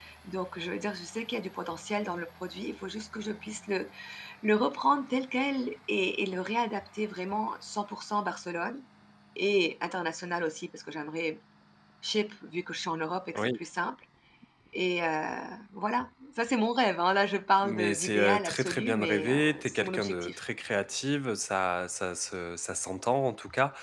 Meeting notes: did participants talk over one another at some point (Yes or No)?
Yes